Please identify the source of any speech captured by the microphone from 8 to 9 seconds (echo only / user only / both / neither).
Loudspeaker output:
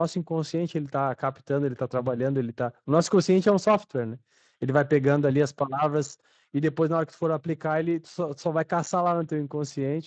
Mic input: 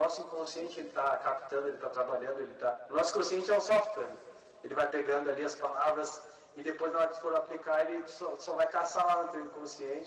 echo only